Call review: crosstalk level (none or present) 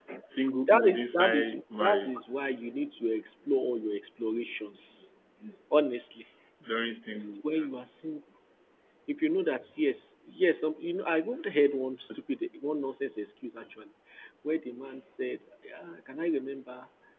present